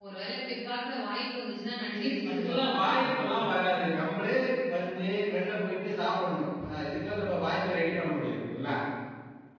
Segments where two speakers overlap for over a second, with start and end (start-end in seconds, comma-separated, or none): 2.0-3.3